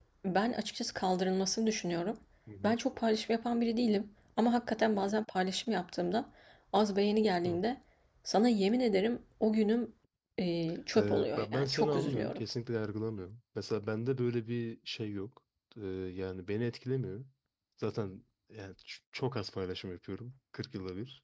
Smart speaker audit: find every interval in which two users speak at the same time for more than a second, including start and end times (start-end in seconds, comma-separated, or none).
11.0-12.4